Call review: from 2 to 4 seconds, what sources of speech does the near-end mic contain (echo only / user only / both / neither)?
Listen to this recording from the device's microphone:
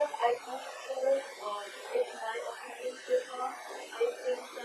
echo only